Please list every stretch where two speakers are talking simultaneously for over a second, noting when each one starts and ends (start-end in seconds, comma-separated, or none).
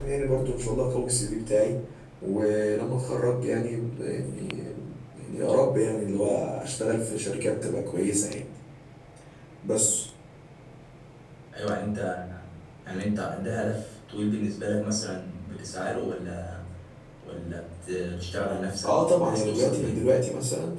18.8-20.1